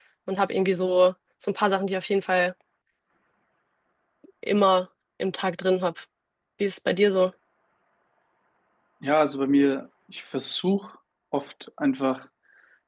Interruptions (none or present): none